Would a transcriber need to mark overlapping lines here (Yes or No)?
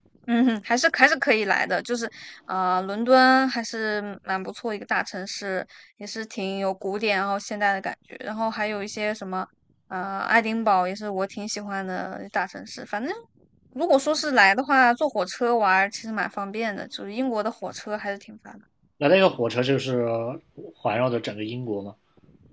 No